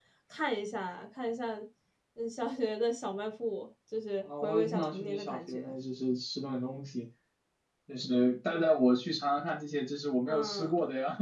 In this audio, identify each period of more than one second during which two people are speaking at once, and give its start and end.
4.4-5.7

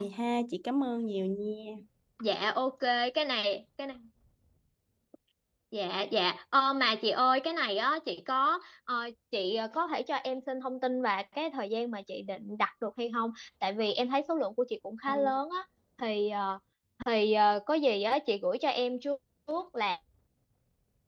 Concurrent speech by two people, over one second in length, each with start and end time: none

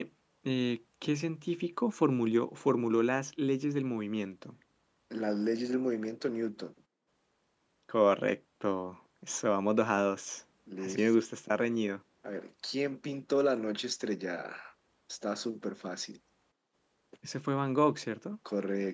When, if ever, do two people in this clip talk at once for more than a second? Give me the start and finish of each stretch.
none

